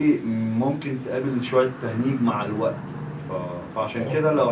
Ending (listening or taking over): listening